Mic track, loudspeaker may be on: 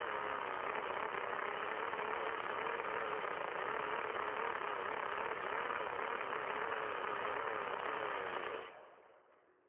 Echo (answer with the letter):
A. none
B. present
A